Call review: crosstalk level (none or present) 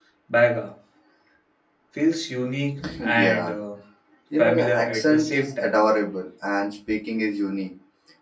present